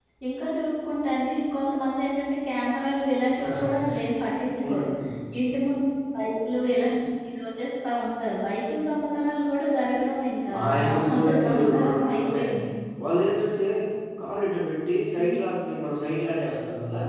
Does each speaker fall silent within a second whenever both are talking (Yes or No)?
No